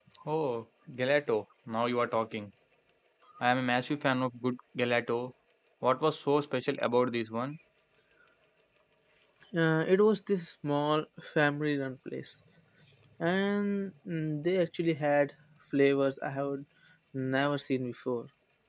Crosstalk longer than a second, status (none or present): none